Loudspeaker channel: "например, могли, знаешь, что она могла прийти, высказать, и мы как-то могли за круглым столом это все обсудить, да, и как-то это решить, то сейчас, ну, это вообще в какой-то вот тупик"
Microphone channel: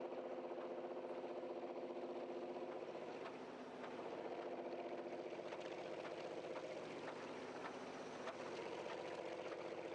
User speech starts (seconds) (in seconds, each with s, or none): none